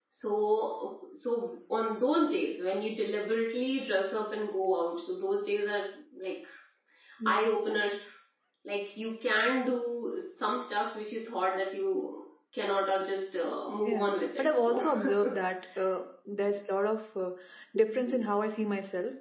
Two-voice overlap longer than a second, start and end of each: 13.8-15.3

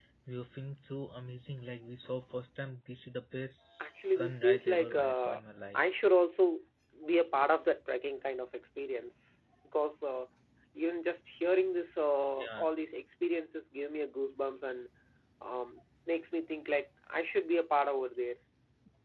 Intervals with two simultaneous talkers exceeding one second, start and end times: 3.8-5.4

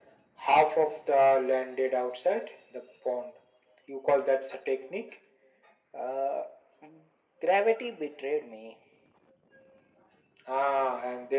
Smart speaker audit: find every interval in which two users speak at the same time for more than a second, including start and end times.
none

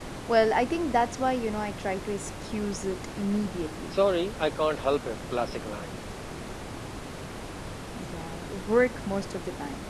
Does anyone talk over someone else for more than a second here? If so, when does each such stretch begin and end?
none

